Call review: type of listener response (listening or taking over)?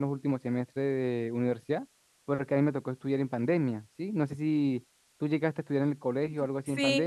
taking over